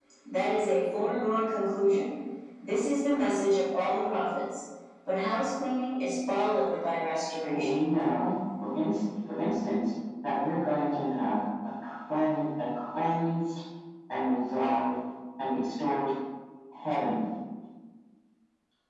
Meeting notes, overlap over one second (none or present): none